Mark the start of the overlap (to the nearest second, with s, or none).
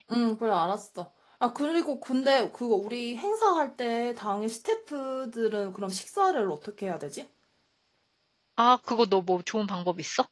none